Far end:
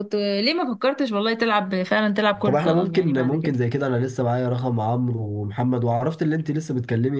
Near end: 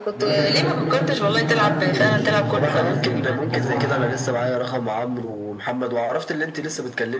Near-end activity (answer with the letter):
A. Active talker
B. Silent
A